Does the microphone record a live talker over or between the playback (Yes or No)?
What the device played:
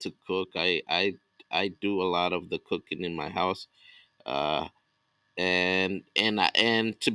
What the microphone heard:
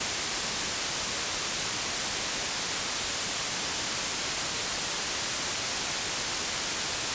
No